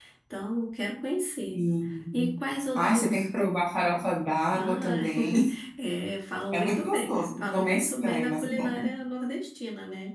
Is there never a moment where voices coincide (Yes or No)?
No